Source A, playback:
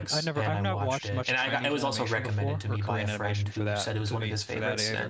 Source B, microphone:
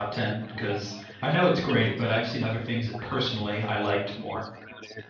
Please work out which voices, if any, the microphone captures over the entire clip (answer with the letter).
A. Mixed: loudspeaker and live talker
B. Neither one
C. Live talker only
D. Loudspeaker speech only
A